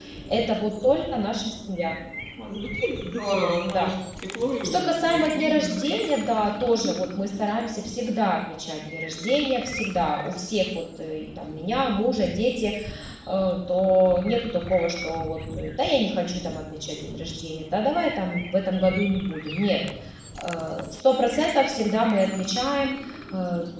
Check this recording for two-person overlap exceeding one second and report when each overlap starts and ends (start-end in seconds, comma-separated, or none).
4.6-5.8